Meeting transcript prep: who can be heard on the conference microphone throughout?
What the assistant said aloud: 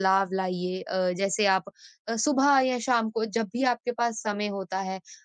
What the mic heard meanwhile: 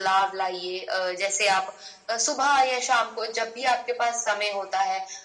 echo only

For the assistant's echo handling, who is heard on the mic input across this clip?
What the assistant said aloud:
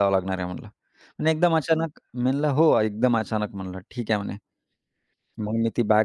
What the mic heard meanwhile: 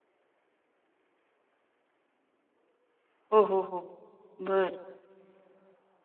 user only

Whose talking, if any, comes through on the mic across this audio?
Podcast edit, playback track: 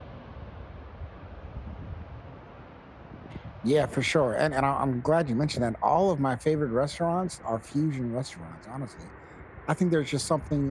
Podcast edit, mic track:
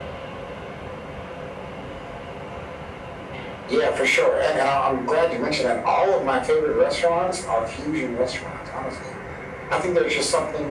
echo only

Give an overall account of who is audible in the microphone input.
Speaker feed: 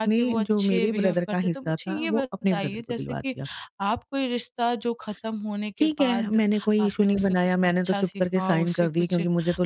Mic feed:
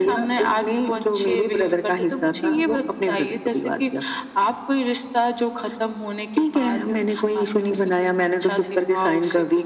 echo only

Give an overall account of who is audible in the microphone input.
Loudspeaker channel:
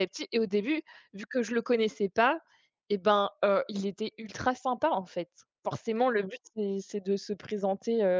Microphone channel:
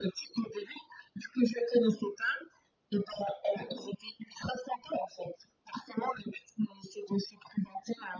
echo only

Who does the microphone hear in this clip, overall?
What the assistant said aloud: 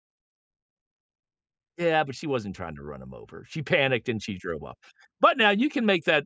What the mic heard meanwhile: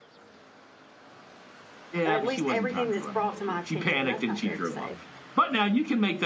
both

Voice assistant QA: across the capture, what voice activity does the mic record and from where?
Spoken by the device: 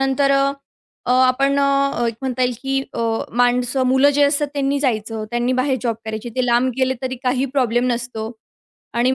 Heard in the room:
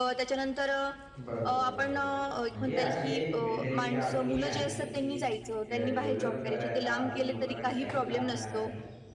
both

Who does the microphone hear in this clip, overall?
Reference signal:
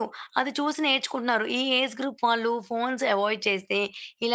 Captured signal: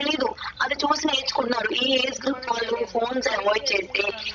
both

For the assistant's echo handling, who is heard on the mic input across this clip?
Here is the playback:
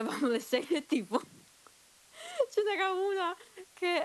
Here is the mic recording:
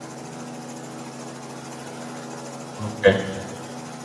user only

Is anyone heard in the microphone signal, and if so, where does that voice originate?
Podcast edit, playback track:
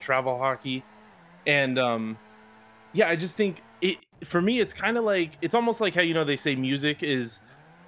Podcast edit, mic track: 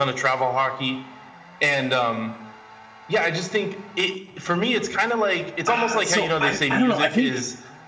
both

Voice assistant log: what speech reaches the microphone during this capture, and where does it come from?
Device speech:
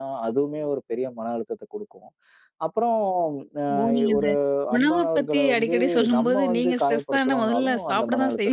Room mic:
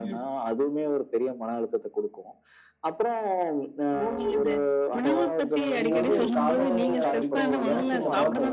both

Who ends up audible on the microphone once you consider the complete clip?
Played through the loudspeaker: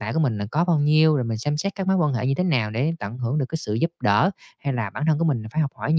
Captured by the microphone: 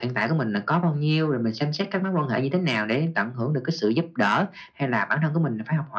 echo only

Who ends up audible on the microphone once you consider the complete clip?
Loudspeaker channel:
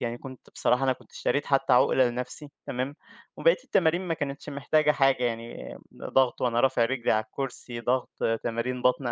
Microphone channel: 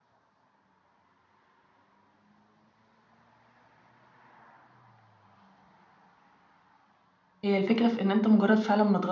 user only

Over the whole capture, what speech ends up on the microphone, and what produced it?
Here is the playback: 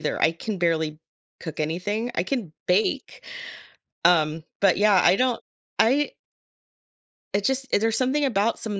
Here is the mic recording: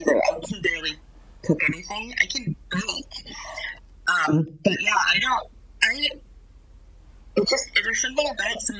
echo only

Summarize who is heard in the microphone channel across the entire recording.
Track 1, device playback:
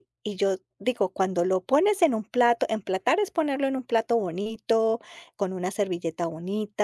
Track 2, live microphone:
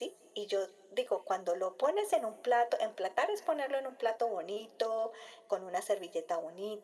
echo only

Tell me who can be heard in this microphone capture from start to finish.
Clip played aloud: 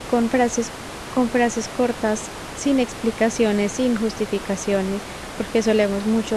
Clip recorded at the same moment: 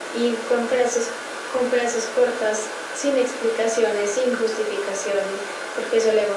echo only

